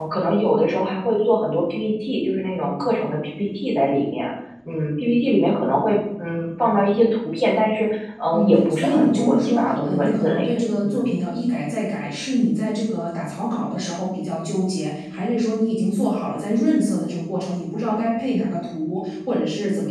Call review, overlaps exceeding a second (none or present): present